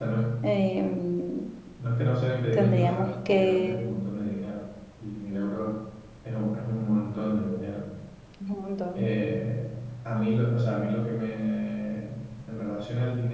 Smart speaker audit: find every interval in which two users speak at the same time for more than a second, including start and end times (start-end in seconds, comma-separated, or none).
2.5-4.0